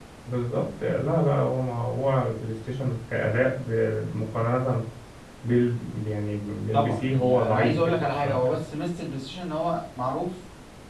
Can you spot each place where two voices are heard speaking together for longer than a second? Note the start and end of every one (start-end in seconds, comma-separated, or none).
6.7-8.6